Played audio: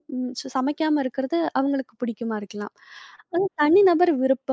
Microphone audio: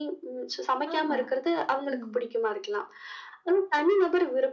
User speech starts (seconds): 0.9 s

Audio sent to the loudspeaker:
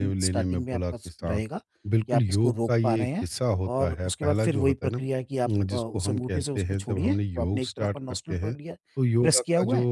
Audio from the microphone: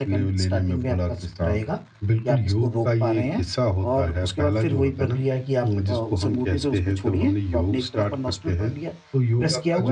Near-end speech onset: none

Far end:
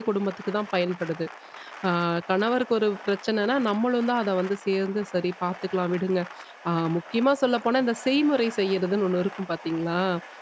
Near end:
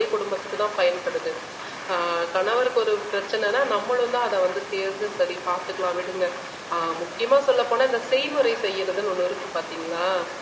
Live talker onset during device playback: none

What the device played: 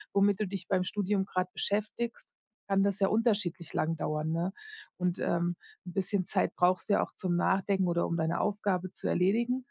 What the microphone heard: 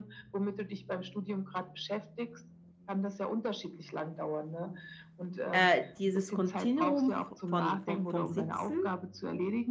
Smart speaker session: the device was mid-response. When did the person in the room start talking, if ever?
5.5 s

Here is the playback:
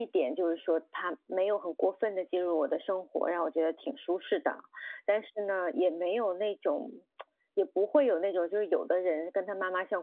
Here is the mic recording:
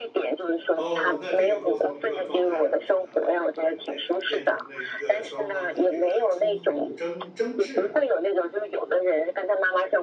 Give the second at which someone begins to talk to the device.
0.7 s

